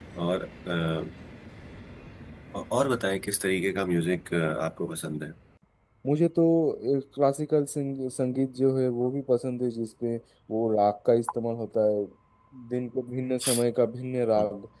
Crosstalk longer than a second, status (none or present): none